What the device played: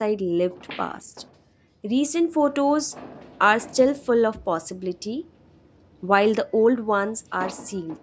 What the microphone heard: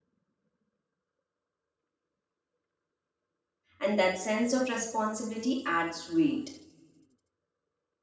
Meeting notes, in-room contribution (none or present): present